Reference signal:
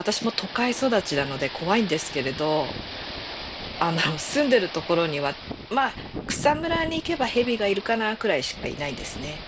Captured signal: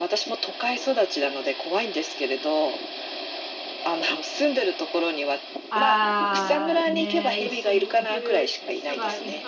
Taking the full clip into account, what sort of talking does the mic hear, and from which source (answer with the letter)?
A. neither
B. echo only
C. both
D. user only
C